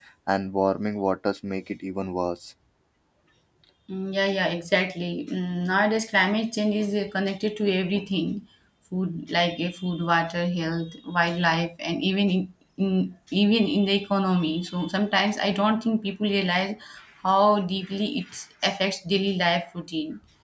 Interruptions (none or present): none